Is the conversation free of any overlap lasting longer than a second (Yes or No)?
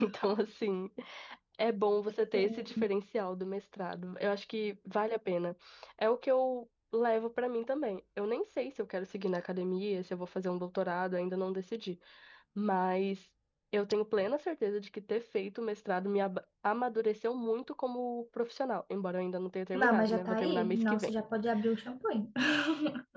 No